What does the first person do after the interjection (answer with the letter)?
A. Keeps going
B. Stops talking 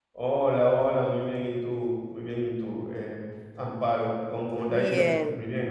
B